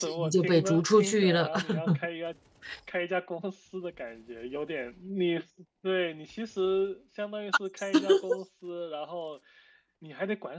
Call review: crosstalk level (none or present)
present